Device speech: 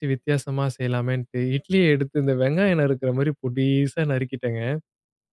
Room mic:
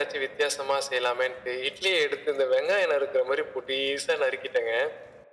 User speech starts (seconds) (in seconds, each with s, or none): none